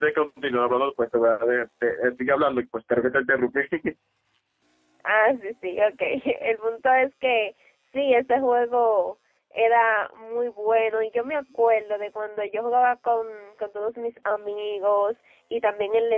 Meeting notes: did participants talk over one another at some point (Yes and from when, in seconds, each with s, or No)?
No